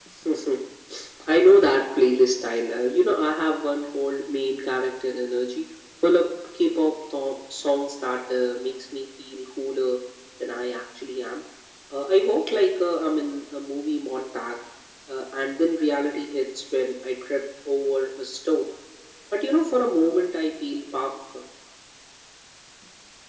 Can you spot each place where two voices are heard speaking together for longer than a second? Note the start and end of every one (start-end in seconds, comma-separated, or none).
none